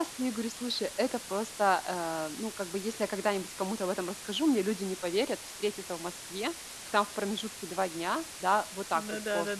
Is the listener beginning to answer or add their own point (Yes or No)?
No